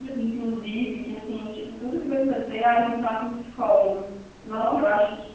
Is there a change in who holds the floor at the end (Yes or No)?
No